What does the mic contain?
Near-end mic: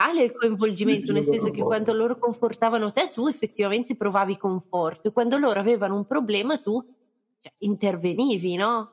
both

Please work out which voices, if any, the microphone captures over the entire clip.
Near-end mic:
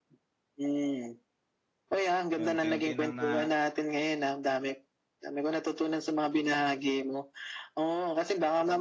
both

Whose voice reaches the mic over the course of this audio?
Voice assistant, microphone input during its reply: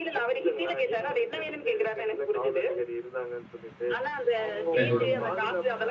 both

